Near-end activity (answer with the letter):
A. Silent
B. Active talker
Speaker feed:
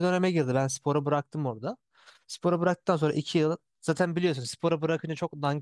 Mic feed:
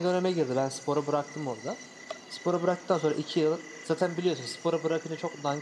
A